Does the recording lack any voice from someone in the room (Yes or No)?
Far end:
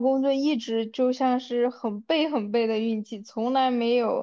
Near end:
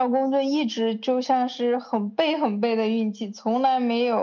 Yes